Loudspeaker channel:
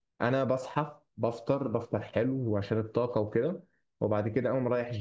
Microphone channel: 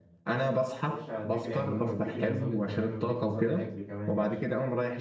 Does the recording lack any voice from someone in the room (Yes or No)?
No